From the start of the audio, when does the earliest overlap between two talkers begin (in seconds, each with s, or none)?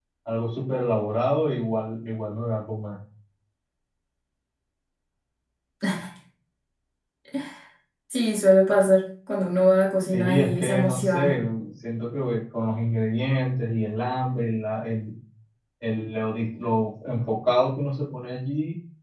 10.1 s